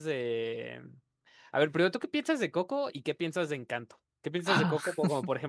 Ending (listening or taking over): listening